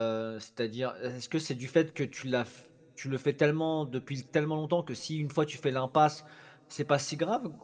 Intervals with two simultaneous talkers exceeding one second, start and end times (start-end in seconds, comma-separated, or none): none